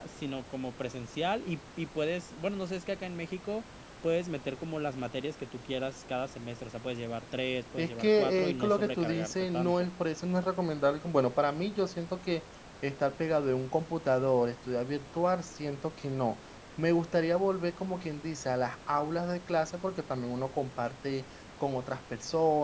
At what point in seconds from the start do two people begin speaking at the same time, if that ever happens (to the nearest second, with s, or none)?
8 s